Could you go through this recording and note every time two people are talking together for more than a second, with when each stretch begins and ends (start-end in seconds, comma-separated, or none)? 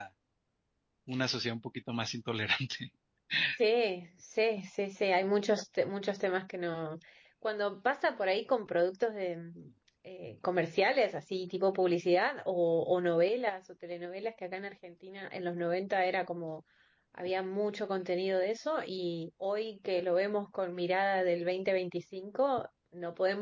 none